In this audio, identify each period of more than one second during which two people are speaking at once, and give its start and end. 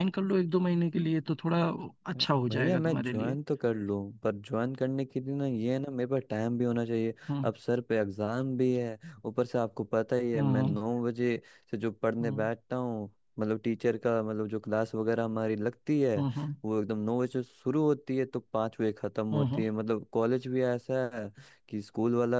2.1-3.4

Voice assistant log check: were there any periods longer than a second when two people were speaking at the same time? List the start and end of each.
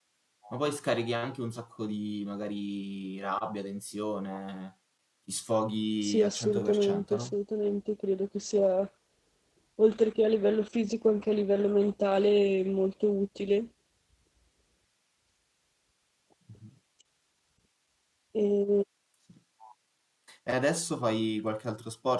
6.0-7.3

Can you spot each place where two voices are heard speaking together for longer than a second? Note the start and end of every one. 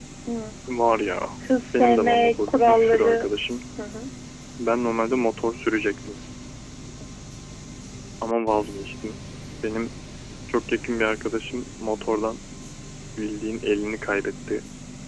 1.8-3.3

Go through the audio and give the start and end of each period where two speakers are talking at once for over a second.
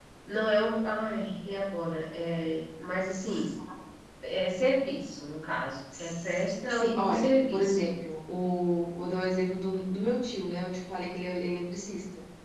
6.0-7.9

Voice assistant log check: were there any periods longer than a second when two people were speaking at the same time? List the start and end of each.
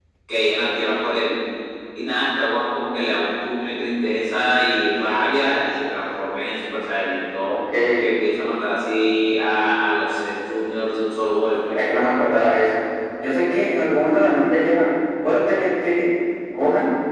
none

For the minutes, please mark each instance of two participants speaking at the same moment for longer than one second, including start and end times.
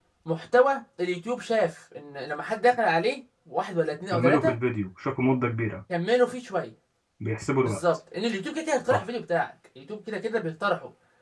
none

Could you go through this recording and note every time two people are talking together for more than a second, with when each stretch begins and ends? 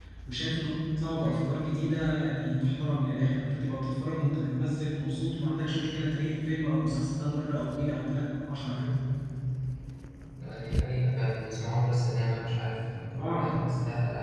none

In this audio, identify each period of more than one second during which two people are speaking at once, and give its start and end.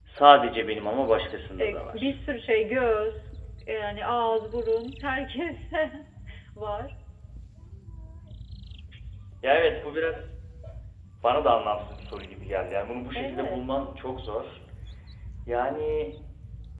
none

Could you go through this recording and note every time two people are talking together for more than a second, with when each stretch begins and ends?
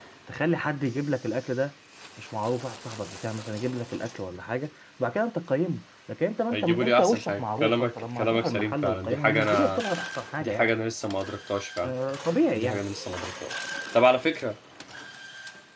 6.5-9.8

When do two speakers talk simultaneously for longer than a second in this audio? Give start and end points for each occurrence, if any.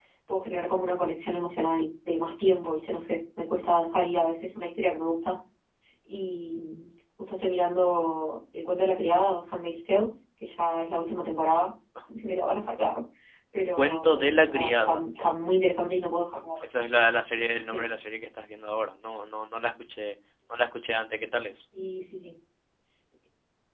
13.8-15.0

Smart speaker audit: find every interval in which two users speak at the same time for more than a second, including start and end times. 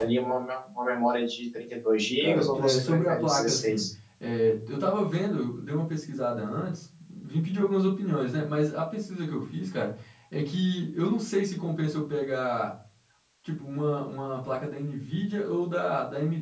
2.2-3.8

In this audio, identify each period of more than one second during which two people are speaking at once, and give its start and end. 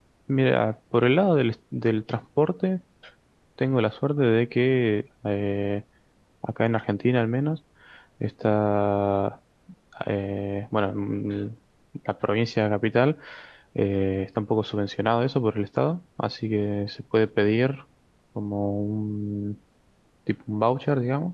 none

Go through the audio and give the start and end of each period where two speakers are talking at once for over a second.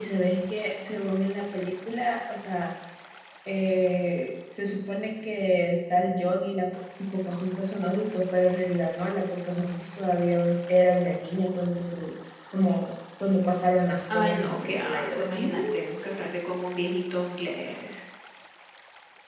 14.1-15.9

